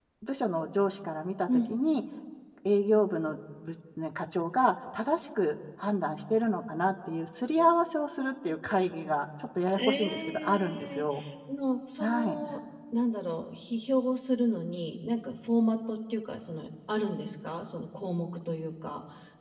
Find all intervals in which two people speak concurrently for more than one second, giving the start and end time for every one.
9.8-11.0

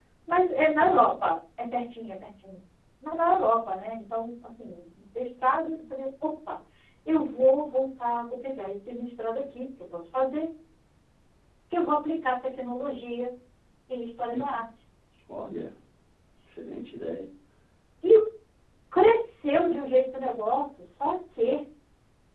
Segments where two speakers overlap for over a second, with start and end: none

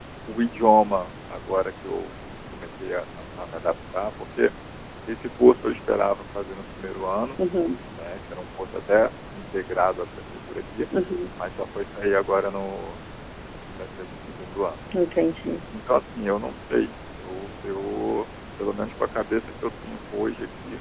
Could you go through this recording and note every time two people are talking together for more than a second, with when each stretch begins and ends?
none

